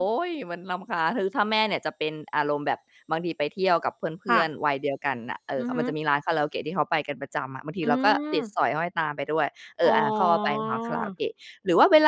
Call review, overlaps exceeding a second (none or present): present